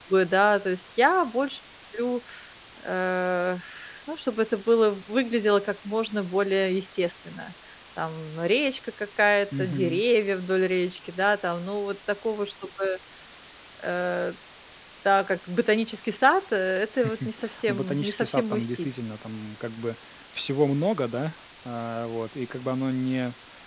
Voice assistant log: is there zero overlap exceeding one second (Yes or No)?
No